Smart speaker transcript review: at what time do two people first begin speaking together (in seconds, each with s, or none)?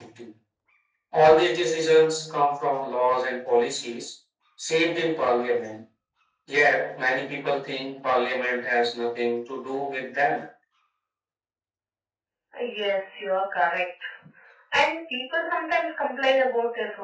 none